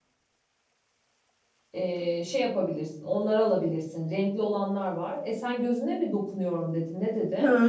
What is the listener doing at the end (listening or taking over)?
taking over